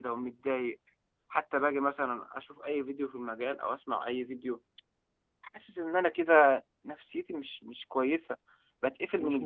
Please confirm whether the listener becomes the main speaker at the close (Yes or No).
No